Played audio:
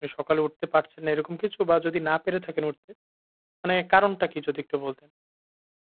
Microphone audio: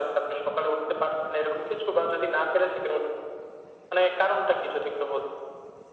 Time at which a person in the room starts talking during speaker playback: none

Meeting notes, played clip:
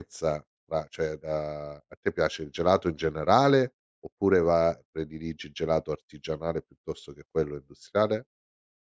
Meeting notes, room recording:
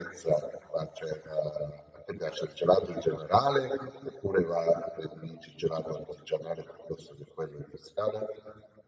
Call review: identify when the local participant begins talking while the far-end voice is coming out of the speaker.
none

